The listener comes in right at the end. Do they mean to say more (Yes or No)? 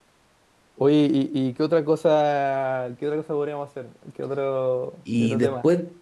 Yes